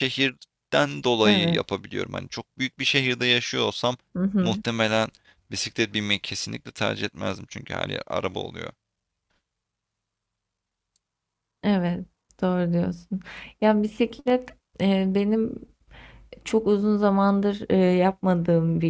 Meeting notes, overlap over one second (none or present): none